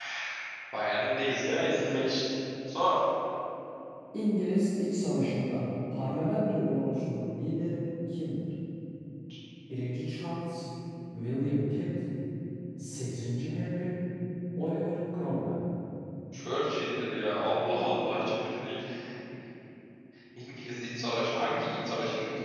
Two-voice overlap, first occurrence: none

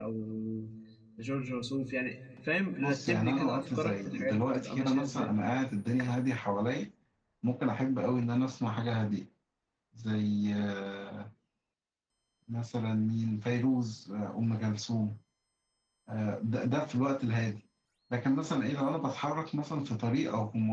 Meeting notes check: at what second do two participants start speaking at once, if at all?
2.8 s

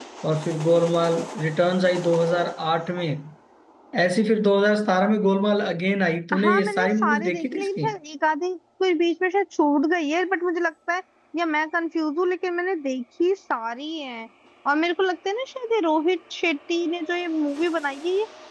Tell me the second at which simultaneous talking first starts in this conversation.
6.3 s

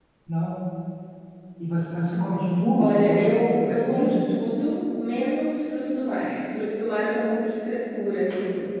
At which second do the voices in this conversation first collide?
2.8 s

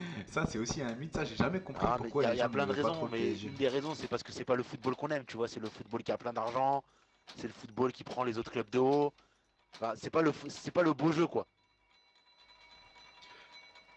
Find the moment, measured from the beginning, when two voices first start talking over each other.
1.7 s

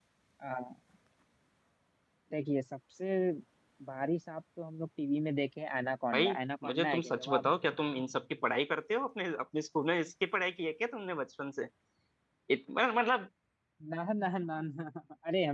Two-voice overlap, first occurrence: 6.1 s

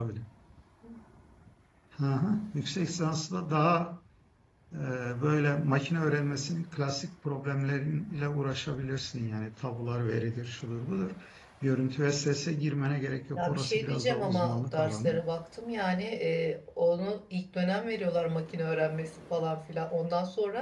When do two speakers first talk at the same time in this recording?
13.4 s

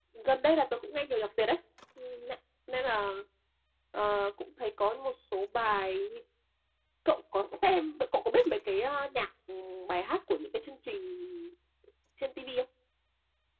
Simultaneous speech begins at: none

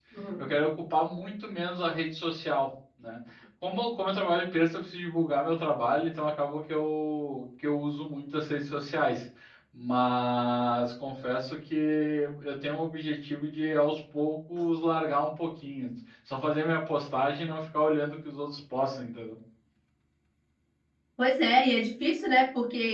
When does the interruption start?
none

